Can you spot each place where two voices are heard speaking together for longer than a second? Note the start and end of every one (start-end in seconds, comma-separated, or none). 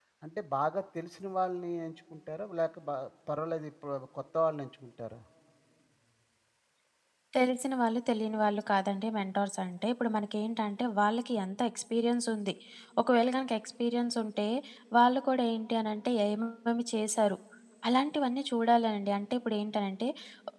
none